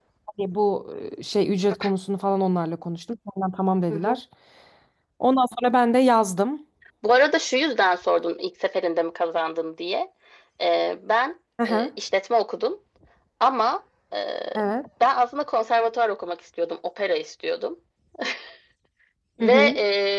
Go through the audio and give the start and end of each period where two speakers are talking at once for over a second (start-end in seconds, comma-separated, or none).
none